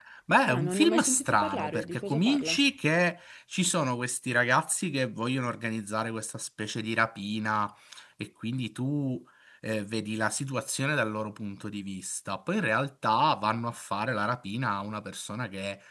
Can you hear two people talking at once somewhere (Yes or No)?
Yes